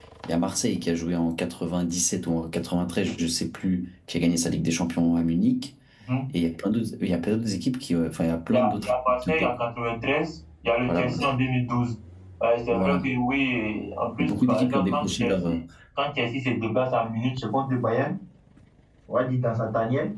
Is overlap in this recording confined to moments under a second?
No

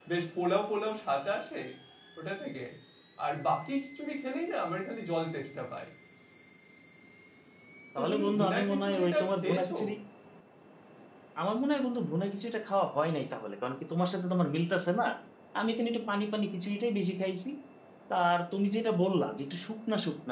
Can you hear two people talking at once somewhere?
Yes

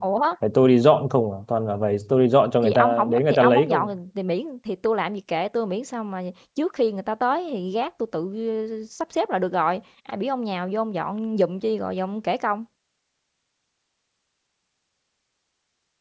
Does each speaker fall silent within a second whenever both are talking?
No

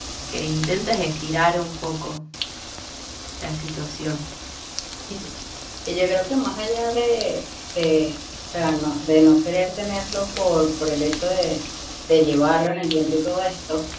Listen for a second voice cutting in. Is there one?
No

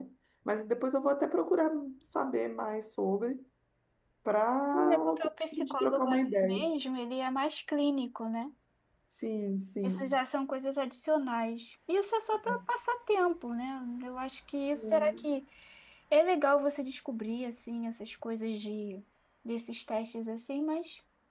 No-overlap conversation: No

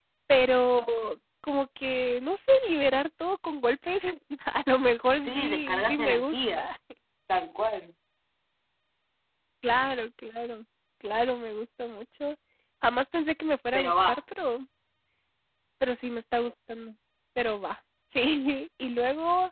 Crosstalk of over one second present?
Yes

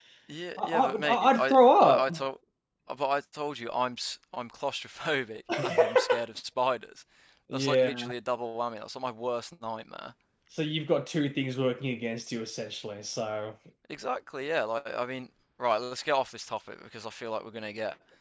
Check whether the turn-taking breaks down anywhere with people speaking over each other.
Yes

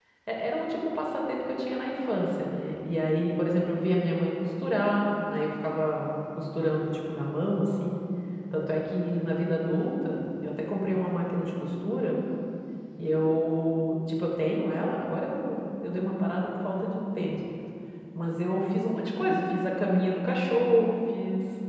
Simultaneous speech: No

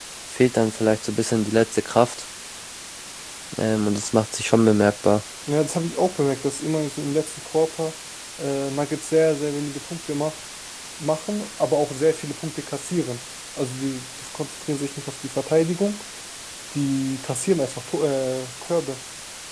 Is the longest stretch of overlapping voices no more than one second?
Yes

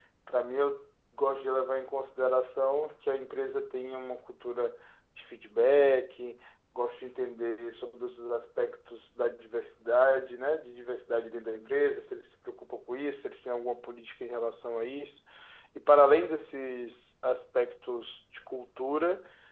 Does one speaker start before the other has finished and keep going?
No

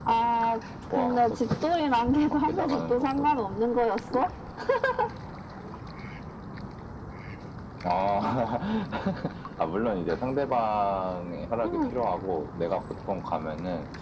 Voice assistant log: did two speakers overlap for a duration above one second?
Yes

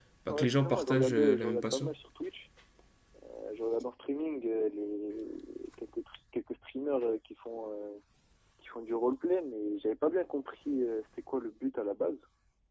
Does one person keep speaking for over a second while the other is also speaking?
Yes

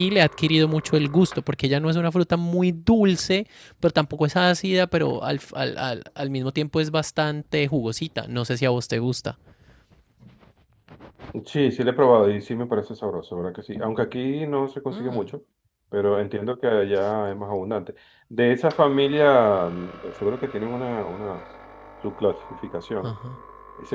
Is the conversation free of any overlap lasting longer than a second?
Yes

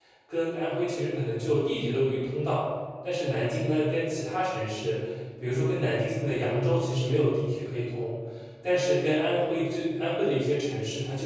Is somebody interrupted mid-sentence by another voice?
No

